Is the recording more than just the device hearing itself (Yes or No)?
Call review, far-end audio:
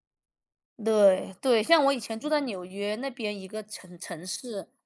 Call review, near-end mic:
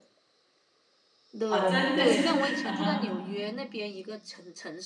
Yes